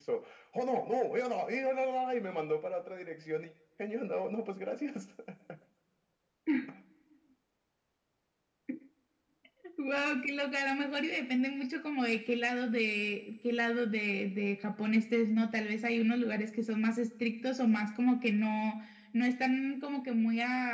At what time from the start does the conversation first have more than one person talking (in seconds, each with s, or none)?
none